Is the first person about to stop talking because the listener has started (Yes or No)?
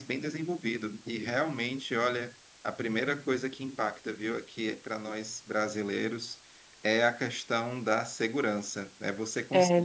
No